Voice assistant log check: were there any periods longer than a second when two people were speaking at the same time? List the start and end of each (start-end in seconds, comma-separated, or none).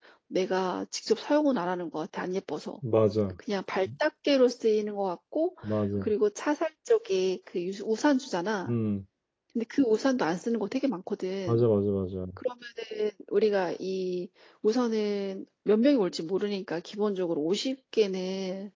none